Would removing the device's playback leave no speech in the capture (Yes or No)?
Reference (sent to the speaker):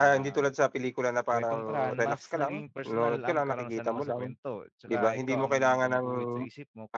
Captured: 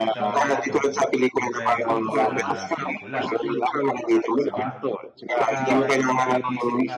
No